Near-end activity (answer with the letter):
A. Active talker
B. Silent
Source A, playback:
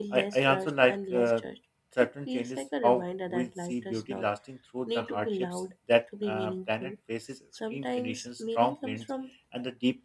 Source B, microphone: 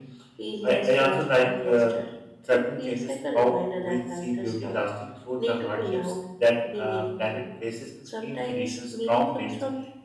B